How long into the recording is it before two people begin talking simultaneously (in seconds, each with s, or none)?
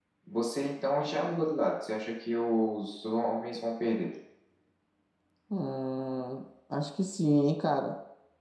none